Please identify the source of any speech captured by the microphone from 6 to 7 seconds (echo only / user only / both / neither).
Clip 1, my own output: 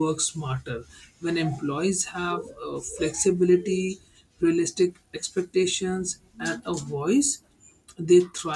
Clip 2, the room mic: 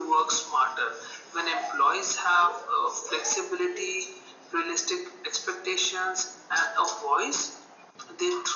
echo only